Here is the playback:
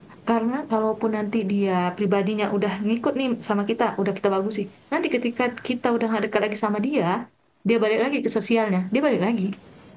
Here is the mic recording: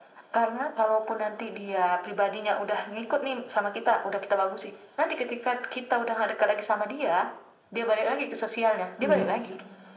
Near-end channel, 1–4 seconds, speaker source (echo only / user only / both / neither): echo only